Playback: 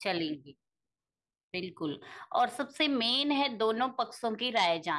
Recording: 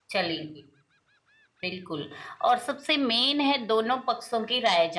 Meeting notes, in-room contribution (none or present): none